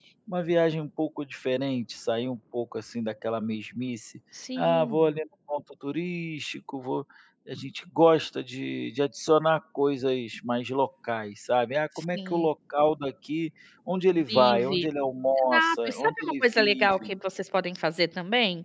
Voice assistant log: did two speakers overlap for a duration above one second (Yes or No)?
Yes